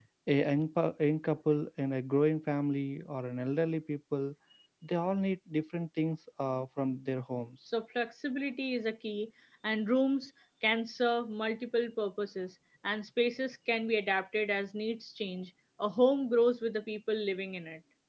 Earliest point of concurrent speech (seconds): none

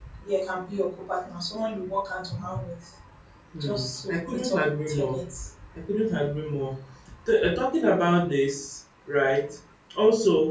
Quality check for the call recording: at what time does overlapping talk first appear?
3.6 s

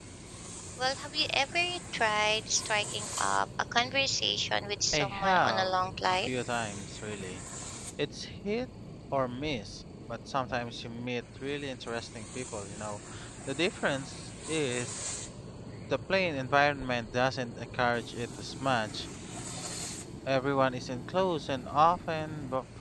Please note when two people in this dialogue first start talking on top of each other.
4.9 s

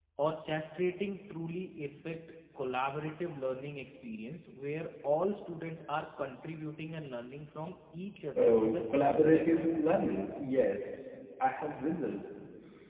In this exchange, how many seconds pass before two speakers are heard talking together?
8.4 s

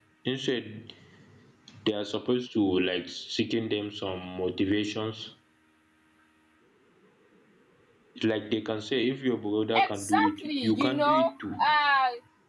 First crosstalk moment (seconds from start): 9.7 s

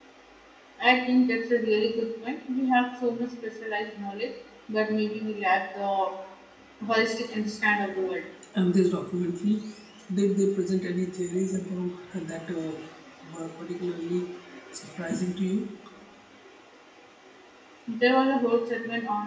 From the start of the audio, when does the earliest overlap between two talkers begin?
none

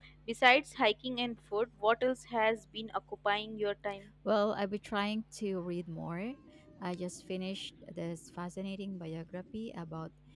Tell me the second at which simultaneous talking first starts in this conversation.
none

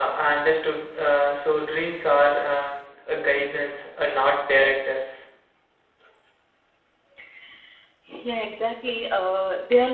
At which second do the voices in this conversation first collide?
none

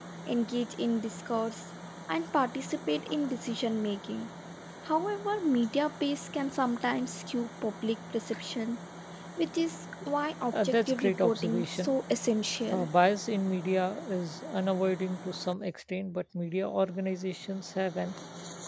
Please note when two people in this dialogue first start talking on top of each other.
10.5 s

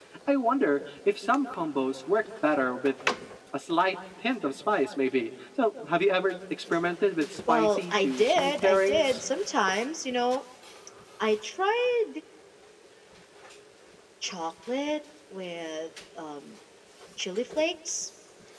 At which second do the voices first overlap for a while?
7.5 s

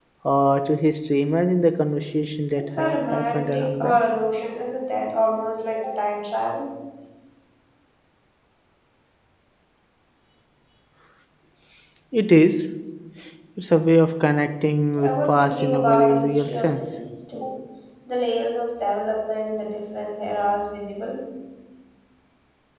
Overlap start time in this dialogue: 2.6 s

